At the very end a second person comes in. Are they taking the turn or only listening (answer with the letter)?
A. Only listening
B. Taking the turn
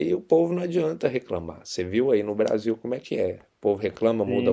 B